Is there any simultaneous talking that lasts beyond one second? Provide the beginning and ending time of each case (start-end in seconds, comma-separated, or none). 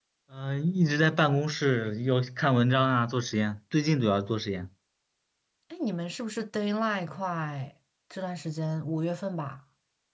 none